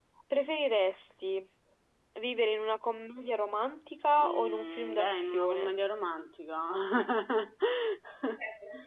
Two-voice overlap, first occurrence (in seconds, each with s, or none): 4.2 s